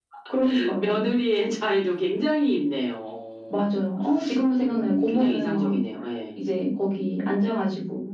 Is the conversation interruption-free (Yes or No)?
No